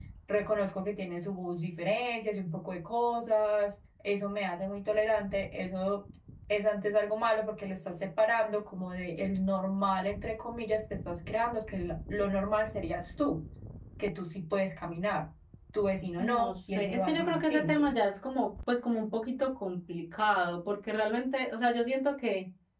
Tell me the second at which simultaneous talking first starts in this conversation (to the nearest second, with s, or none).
16 s